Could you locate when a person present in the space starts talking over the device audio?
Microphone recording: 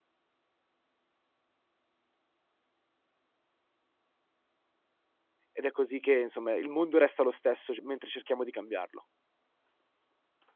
5.5 s

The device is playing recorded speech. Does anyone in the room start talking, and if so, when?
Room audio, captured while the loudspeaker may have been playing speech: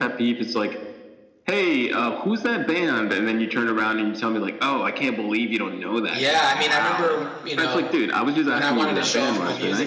6.1 s

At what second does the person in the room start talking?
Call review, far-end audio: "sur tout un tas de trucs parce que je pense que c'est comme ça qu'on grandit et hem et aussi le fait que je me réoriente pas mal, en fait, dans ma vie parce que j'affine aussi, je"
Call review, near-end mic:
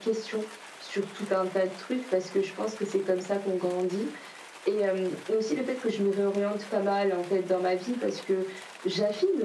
none

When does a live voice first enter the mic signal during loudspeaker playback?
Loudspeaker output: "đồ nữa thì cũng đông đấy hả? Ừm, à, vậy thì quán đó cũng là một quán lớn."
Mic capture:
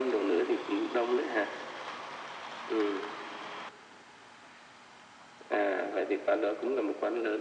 none

